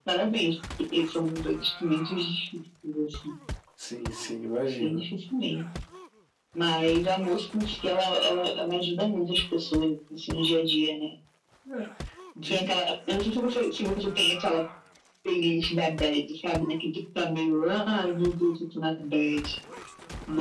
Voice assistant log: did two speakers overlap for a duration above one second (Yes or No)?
No